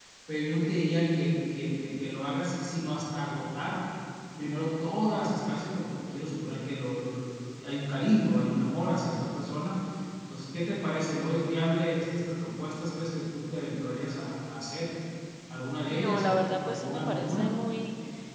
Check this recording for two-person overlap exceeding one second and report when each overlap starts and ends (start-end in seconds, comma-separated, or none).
15.9-17.5